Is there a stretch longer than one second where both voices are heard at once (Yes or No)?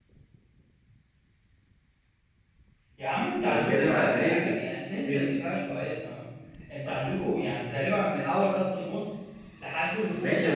Yes